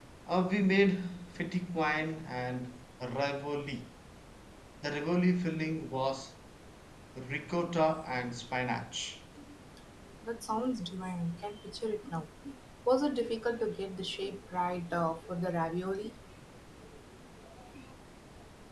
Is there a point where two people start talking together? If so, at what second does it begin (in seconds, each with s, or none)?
none